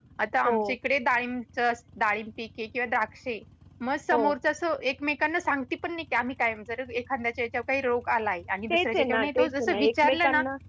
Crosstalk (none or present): present